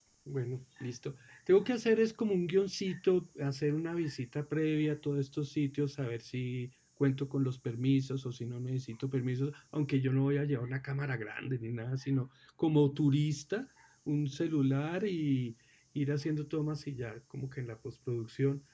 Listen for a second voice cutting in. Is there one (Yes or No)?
No